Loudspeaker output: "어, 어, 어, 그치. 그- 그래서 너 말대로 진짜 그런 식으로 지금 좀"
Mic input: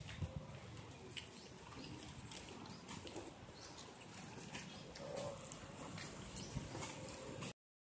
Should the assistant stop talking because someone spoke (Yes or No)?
No